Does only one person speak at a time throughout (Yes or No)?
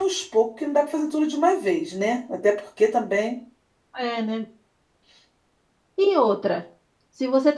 Yes